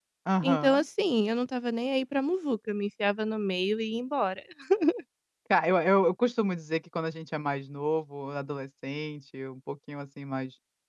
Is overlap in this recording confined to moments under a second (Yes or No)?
Yes